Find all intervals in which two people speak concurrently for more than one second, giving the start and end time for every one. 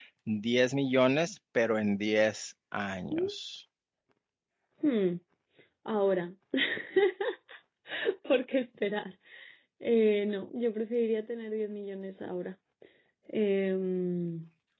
none

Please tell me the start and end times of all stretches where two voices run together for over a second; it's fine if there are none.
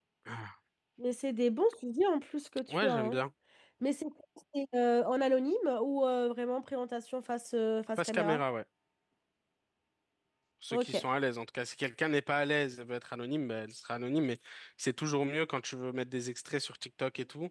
none

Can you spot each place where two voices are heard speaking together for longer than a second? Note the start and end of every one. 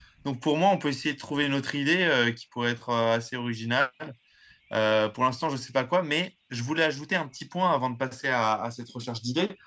none

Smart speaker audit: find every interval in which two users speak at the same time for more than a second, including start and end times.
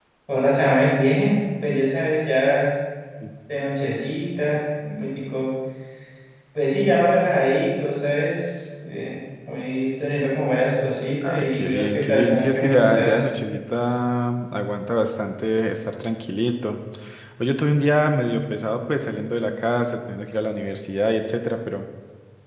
11.2-13.2

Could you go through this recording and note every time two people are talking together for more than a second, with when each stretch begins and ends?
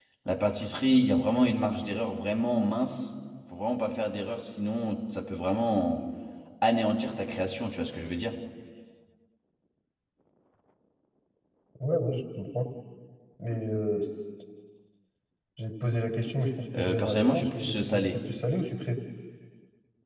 16.8-18.2

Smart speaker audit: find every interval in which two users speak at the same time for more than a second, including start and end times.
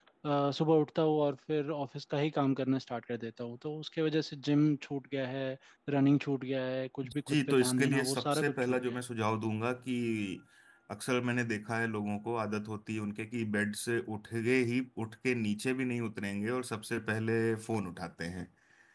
7.3-9.0

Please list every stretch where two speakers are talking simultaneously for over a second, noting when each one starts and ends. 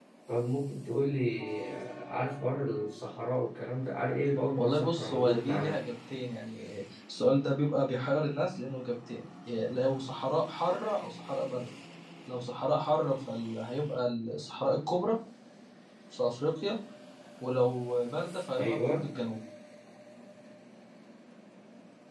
4.6-5.8

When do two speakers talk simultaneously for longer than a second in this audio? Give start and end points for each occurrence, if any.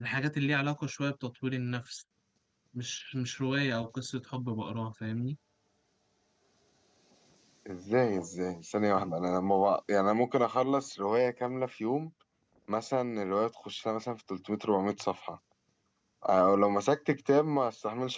none

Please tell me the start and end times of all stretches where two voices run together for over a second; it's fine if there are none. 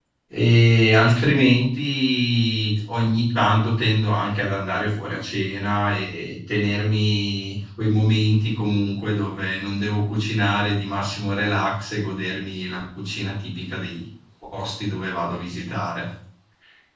none

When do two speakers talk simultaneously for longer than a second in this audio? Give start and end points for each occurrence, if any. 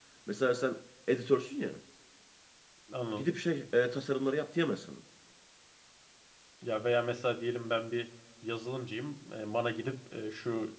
none

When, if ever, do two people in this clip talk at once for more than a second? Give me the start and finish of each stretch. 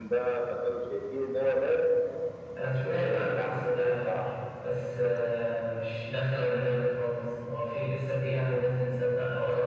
2.6-4.3

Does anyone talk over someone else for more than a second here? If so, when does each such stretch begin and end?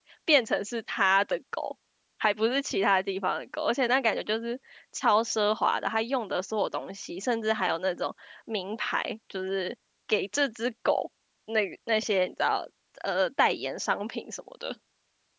none

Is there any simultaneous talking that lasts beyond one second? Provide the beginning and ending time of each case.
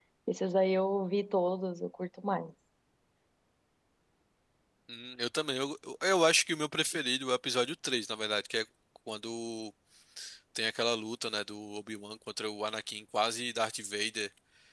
none

